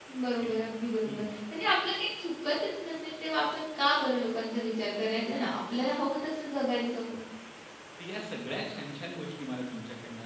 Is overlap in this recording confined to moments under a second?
Yes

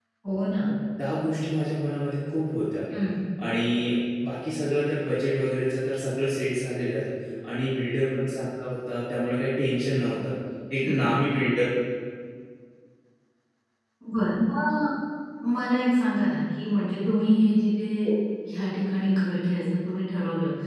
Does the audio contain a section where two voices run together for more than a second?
No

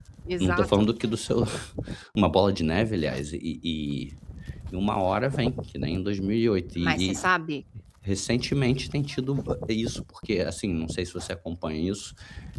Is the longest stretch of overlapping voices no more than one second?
Yes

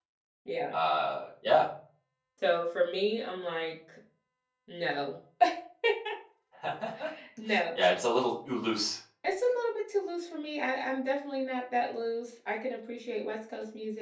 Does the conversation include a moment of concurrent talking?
No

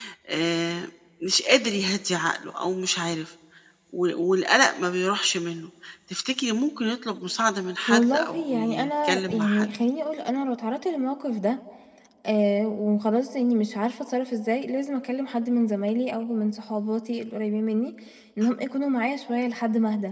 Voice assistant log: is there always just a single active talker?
No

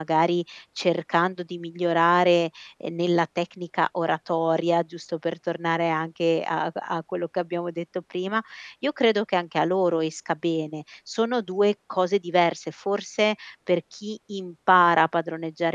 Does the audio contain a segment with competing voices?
No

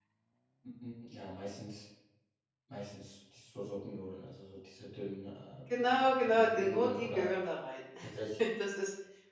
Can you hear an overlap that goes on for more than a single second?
Yes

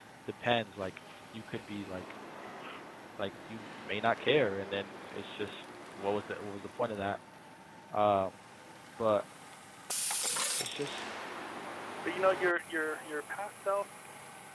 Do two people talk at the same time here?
No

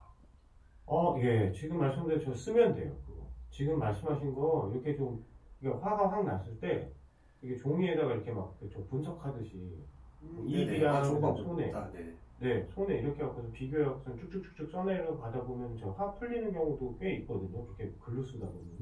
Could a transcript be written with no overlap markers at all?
No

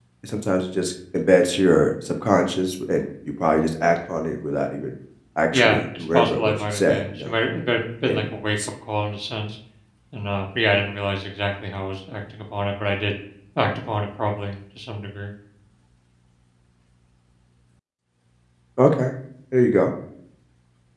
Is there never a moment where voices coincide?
No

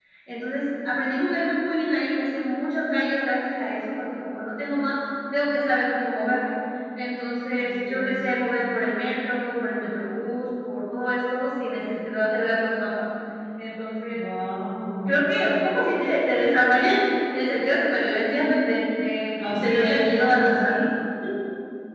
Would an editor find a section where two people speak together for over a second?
Yes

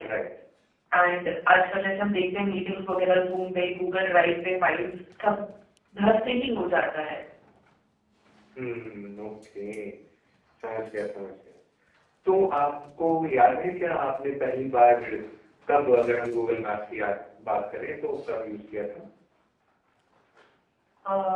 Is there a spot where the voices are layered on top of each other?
No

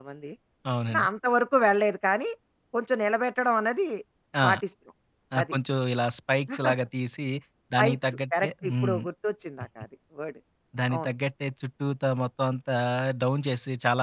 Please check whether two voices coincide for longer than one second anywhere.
Yes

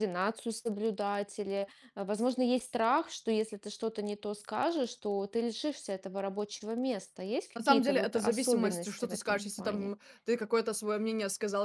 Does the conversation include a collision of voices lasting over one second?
Yes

